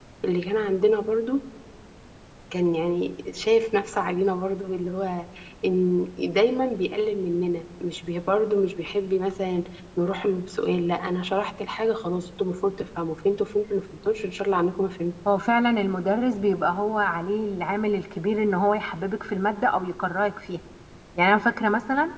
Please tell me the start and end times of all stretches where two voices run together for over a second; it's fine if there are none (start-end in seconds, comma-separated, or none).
none